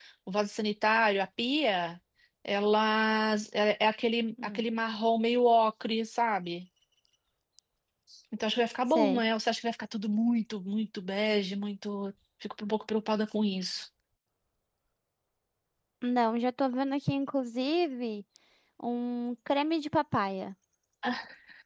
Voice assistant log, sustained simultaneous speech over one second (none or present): none